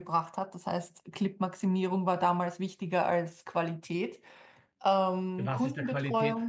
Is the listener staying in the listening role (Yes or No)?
No